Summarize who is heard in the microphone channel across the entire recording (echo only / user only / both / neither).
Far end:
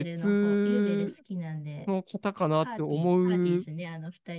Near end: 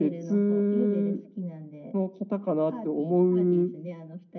echo only